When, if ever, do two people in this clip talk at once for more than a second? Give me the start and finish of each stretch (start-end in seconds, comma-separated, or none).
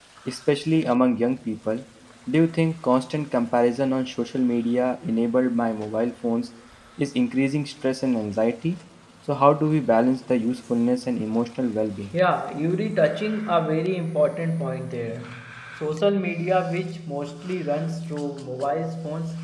none